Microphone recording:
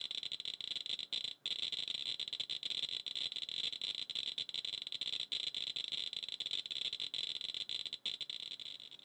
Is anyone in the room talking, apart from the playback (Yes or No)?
No